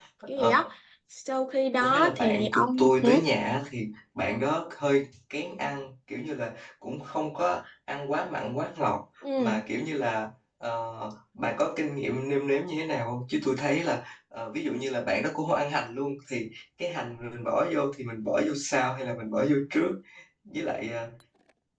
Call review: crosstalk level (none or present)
present